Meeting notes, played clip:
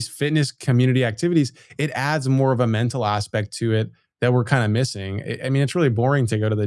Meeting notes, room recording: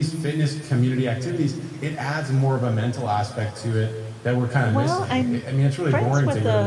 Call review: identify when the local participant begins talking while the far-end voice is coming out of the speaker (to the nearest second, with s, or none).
5 s